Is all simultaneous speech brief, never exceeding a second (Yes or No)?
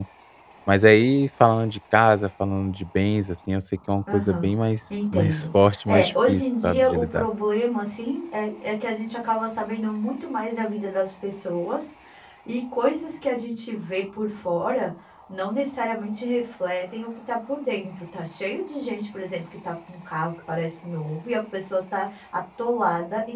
No